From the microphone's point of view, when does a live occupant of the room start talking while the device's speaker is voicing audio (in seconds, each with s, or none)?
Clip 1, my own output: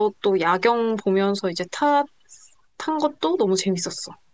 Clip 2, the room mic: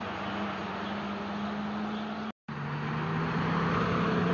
none